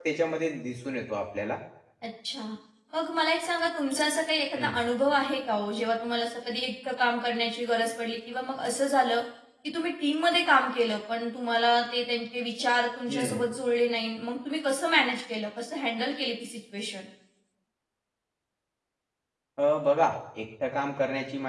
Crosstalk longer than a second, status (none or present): none